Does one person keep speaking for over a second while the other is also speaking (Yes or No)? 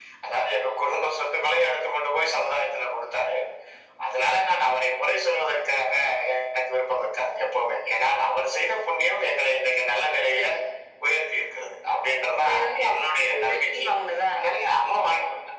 Yes